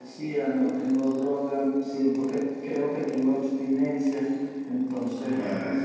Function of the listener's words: taking over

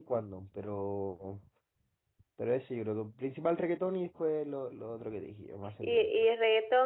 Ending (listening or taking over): taking over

